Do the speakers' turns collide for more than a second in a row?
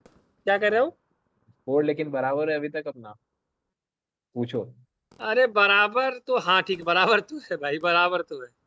No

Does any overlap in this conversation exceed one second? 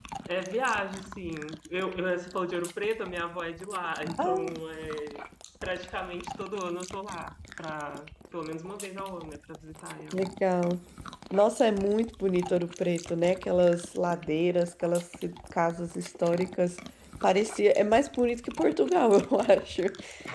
No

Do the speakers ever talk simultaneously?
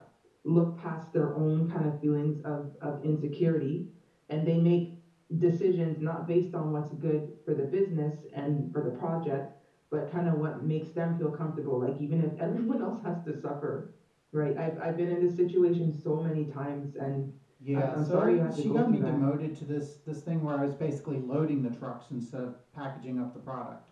Yes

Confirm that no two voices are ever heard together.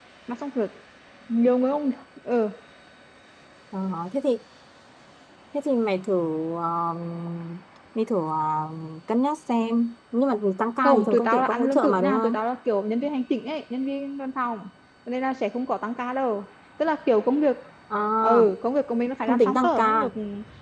No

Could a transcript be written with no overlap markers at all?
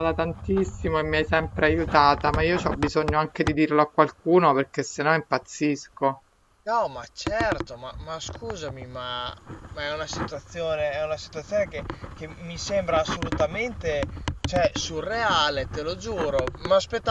Yes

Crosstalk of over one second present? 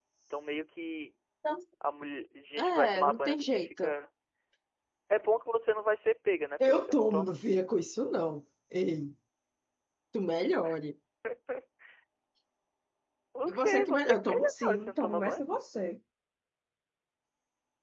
Yes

